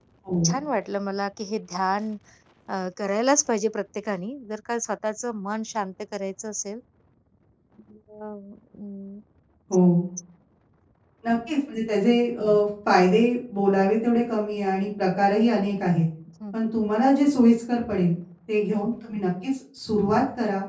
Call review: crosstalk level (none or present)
none